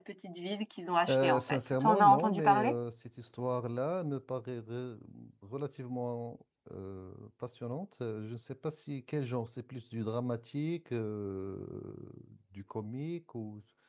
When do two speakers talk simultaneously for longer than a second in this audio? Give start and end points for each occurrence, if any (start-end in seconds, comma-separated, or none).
1.1-2.8